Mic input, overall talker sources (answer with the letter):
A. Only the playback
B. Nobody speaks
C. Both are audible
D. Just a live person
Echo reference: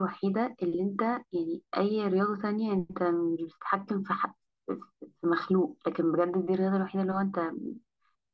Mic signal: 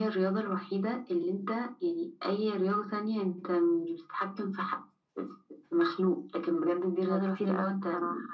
C